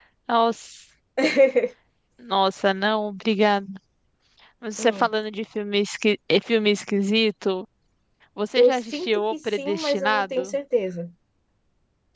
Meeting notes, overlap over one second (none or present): present